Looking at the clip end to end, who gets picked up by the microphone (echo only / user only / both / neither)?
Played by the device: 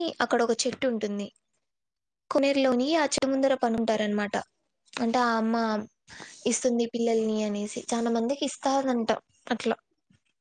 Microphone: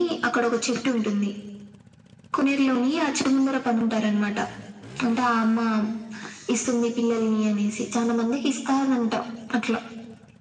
echo only